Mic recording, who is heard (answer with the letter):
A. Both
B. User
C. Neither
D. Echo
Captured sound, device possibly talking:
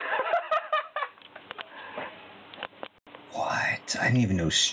B